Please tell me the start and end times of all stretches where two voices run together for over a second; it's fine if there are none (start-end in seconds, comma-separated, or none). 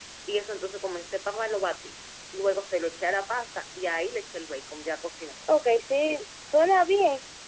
none